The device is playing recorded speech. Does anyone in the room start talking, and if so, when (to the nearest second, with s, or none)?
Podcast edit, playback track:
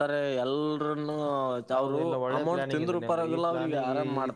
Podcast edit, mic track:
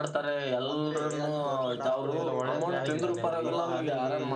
1 s